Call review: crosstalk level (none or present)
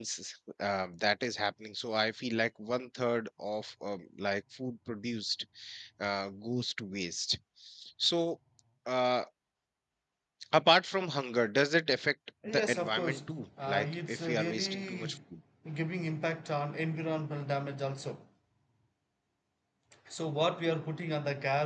present